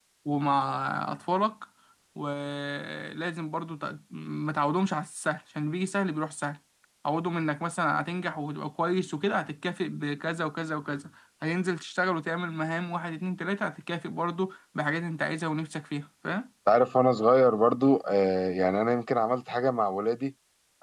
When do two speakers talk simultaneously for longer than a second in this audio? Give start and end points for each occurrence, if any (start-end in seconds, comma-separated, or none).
none